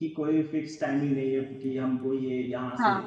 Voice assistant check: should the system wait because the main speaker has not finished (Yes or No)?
Yes